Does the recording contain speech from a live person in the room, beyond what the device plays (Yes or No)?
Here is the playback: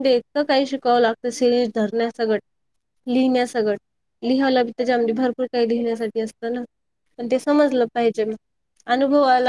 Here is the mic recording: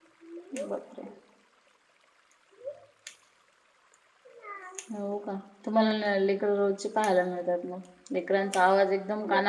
Yes